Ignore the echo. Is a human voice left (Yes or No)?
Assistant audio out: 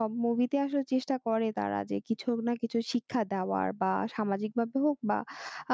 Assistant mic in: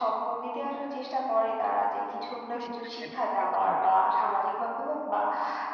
Yes